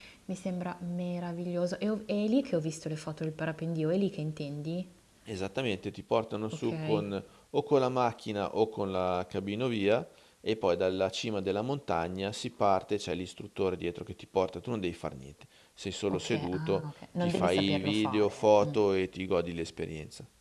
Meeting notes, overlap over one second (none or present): present